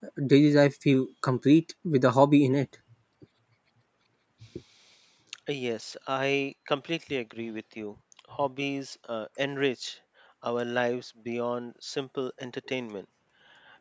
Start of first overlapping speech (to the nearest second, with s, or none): none